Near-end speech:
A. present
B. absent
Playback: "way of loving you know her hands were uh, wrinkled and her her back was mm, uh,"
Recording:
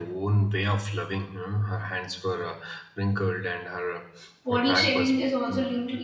A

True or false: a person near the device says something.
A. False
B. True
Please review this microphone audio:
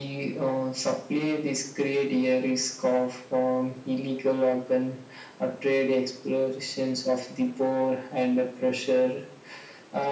A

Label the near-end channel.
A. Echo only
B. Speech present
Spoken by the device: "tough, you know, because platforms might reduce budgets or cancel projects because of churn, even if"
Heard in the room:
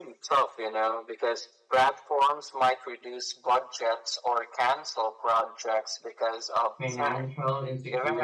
B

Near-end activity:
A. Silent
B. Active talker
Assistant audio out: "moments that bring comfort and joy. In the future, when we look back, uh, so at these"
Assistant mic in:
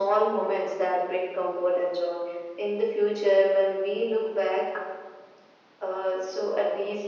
A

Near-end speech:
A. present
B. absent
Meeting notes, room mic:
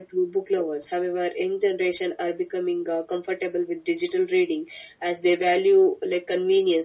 B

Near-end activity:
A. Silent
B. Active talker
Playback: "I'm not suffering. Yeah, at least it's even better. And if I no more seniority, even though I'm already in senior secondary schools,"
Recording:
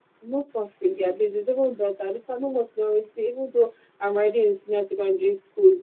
A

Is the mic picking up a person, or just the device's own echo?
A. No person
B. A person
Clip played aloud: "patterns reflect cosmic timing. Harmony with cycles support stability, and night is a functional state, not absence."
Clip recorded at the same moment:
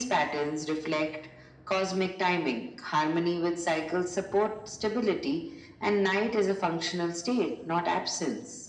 A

